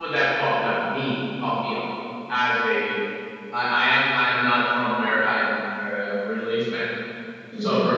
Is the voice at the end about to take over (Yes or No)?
No